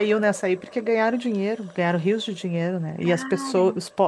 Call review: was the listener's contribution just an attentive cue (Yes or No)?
Yes